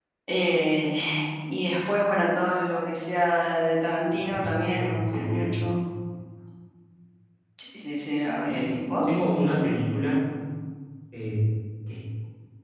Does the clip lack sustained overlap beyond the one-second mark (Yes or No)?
No